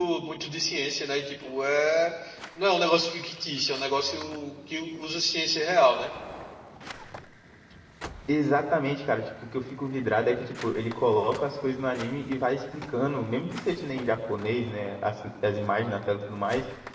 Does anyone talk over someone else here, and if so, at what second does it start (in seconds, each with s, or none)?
none